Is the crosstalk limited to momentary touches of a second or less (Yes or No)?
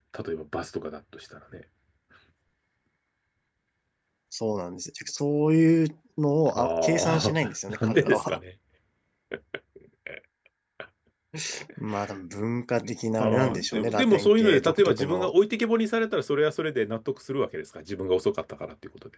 No